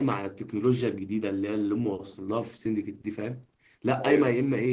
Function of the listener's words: listening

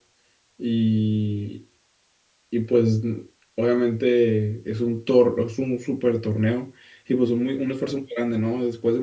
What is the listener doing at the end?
listening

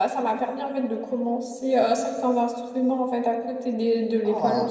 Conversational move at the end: taking over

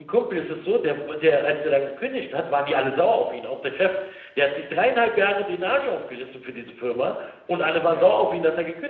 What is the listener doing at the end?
listening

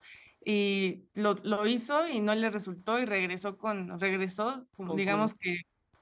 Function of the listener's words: listening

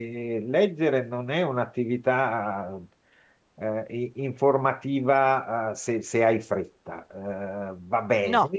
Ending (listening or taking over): listening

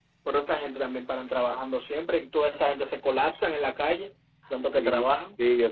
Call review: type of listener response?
taking over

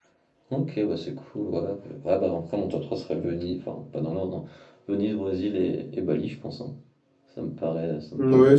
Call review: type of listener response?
taking over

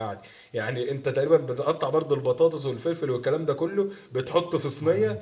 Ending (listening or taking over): listening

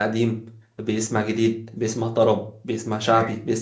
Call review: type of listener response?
listening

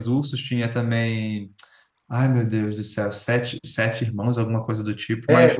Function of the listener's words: taking over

